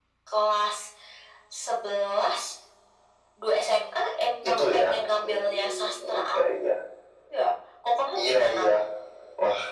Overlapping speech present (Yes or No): Yes